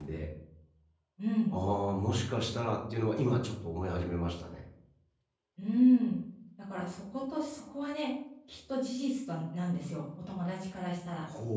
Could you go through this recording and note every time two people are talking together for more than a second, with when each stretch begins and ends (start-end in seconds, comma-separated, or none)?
none